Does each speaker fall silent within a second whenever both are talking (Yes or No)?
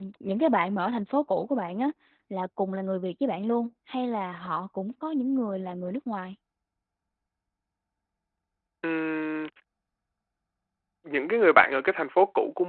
Yes